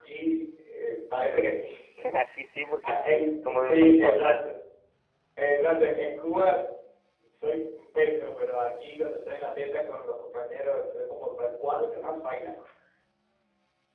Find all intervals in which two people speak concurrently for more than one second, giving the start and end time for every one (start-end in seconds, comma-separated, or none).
2.9-4.4